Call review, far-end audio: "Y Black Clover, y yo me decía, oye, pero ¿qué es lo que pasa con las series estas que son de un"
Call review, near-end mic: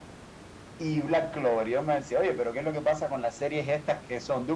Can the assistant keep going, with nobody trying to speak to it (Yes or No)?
Yes